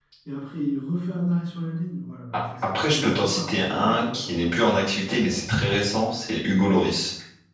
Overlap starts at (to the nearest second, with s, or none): 3 s